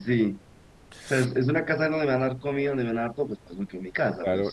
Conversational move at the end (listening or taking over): taking over